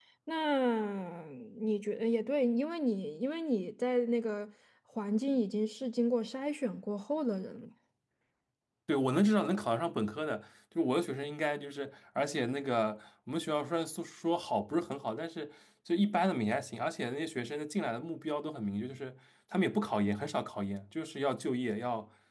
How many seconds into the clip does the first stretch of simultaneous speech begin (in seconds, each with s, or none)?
none